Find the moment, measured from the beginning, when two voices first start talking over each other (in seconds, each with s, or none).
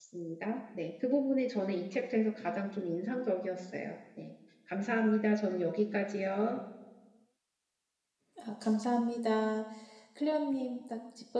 none